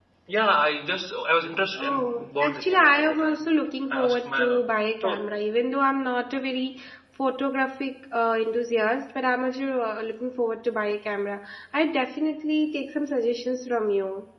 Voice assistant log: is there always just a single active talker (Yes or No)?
No